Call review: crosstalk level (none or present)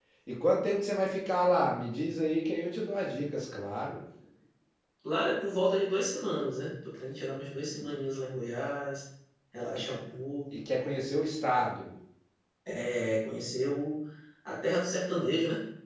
none